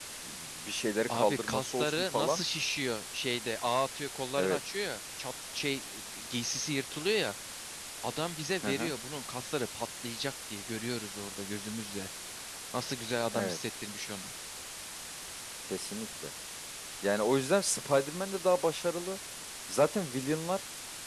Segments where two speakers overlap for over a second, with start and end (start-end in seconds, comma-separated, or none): 1.1-2.4